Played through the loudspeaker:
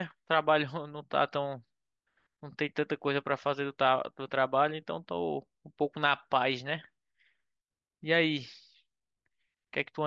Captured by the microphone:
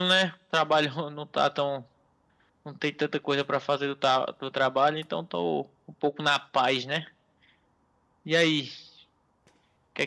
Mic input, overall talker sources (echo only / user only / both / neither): echo only